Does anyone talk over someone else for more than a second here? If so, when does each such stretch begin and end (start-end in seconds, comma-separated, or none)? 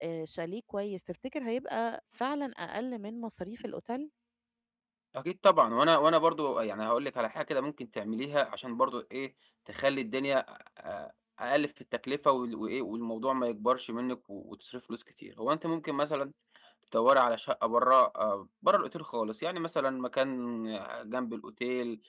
none